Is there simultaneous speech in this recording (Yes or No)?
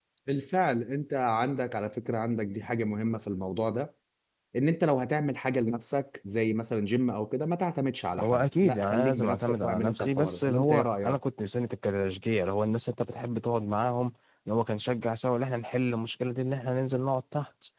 Yes